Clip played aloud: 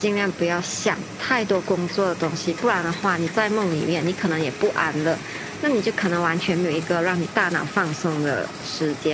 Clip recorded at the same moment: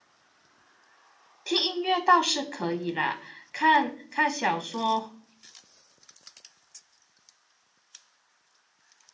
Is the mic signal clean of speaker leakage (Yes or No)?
Yes